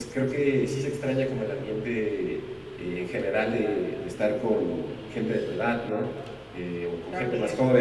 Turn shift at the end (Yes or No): No